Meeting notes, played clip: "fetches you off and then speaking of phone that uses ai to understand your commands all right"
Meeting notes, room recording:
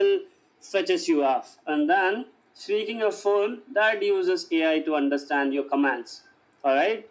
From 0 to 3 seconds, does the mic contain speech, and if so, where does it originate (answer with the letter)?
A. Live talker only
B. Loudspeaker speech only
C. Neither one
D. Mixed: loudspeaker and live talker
B